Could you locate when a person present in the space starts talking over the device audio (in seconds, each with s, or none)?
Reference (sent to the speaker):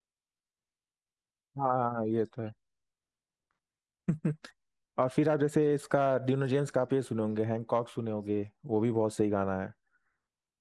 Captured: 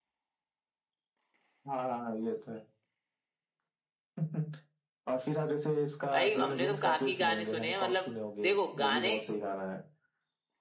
6.1 s